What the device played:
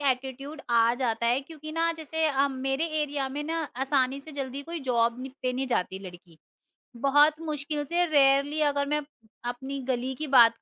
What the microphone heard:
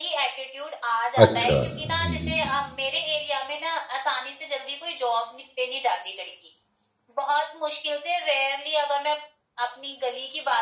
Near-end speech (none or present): present